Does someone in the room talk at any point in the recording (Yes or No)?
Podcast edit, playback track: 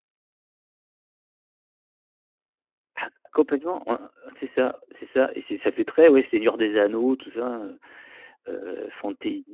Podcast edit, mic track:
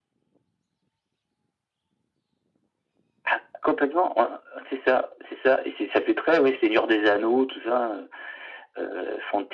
No